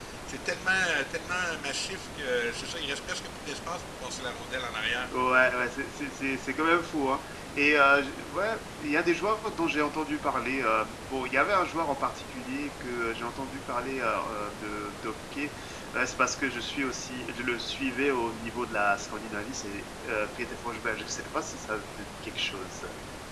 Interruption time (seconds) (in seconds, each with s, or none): none